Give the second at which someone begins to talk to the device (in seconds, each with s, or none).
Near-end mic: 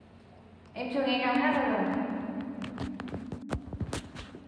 0.7 s